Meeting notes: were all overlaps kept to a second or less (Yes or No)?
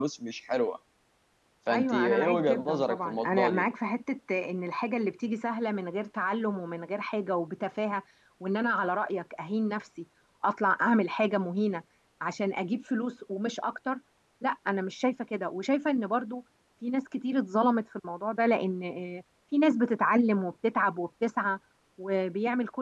No